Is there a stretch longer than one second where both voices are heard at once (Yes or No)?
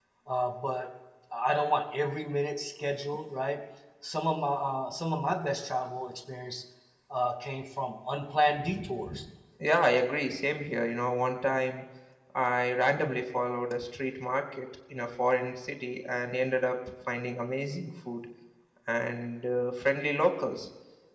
No